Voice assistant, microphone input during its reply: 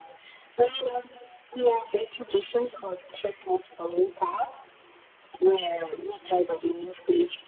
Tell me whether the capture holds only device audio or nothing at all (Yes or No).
Yes